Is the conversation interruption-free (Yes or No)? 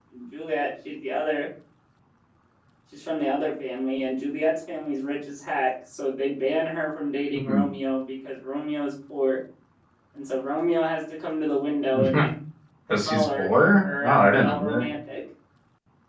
No